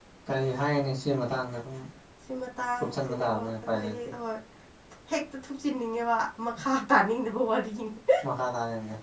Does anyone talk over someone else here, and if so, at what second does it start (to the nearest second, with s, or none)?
3 s